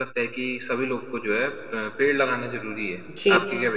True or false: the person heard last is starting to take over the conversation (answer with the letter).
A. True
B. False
A